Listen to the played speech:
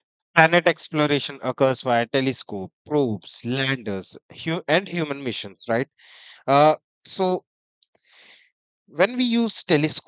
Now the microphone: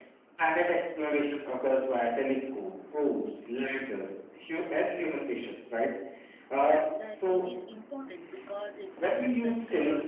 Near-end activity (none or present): present